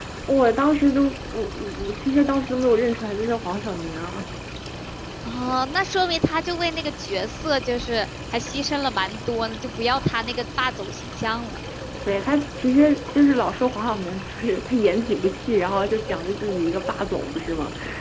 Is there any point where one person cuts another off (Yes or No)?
No